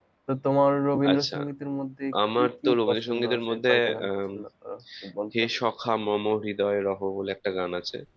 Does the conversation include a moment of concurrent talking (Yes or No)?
Yes